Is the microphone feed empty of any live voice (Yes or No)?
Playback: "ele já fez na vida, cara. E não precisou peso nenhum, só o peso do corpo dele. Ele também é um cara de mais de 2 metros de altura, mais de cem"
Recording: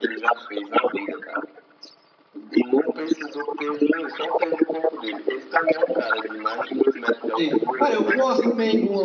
No